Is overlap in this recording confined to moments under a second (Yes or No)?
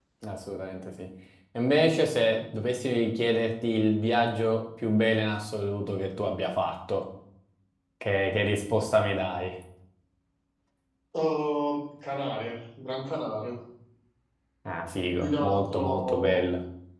No